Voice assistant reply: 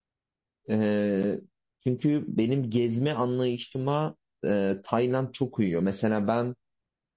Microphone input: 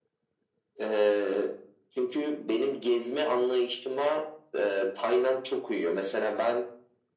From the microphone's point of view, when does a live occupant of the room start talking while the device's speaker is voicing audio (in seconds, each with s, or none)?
none